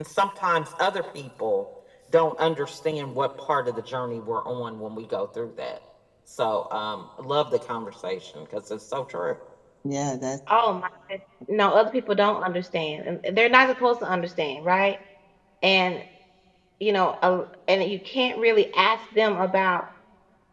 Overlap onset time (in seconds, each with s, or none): none